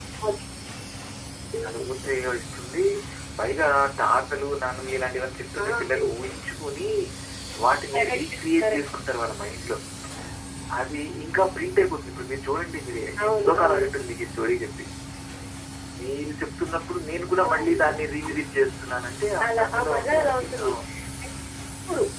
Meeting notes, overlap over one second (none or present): present